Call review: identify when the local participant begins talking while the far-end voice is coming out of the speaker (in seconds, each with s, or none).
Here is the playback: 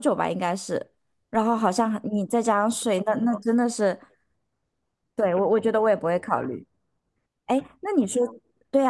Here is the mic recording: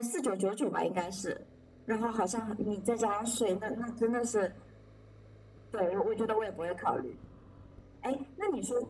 none